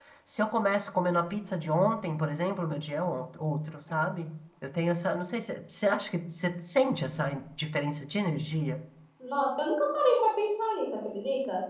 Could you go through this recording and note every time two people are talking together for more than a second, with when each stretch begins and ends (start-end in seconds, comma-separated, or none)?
none